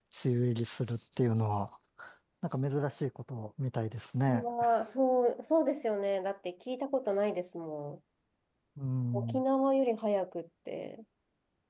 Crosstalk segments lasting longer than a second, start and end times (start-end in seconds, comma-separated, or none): none